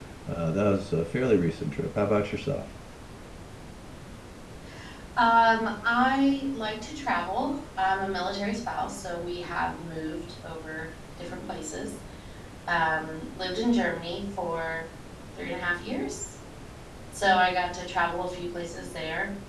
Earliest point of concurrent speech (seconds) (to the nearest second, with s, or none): none